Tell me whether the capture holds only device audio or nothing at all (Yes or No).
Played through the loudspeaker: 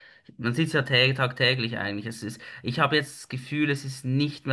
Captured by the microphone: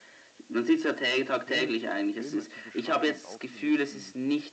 No